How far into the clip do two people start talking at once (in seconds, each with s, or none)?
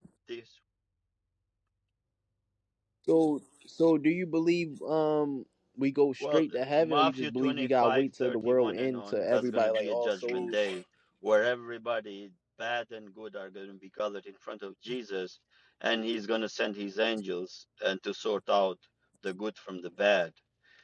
6.2 s